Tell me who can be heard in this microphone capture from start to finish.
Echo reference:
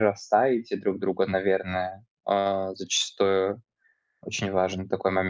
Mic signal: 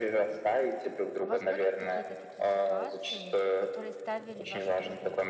both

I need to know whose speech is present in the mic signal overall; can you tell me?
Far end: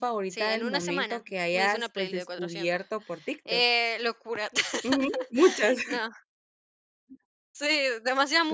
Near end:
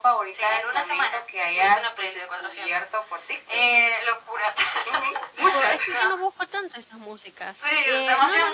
both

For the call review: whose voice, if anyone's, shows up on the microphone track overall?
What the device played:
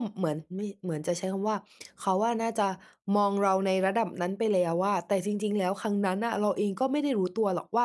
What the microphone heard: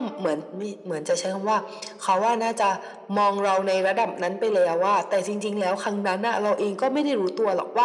echo only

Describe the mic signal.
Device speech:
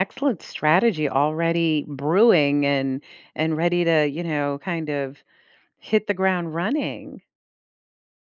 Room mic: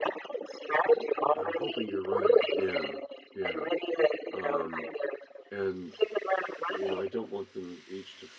both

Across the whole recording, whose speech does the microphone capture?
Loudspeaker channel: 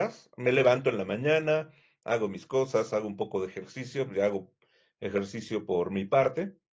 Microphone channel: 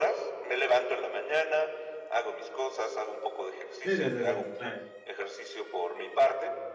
both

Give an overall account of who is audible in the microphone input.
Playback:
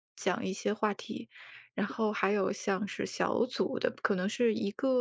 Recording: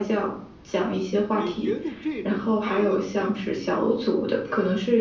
both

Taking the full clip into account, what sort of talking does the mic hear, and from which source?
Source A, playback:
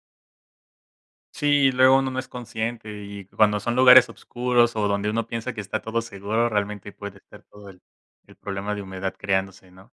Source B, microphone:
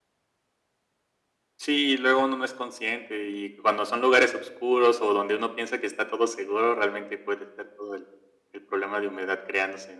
echo only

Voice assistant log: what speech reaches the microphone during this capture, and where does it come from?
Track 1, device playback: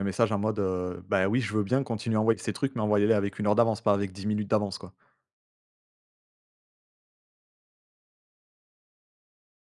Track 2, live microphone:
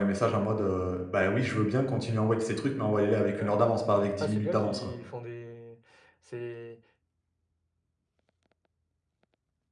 both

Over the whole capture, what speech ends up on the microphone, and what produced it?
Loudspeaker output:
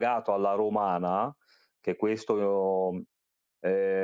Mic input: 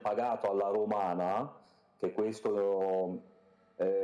echo only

